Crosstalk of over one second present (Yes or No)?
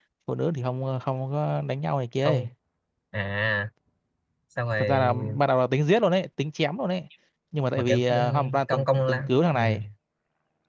Yes